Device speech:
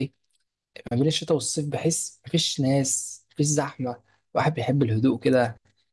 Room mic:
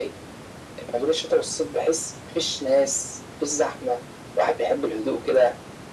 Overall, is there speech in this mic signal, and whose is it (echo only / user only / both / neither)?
echo only